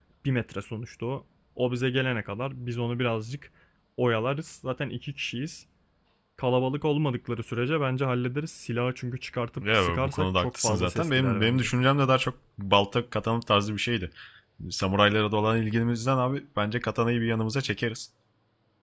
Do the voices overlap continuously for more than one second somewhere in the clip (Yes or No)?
Yes